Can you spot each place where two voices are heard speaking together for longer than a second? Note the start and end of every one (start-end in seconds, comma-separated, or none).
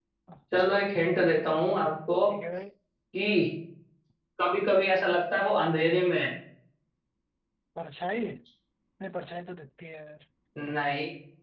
none